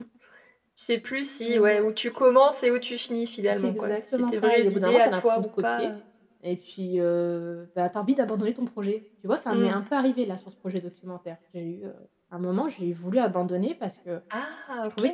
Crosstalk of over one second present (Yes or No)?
Yes